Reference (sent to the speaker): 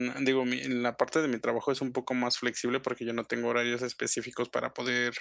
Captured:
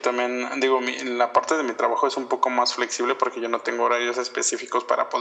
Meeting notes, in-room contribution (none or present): none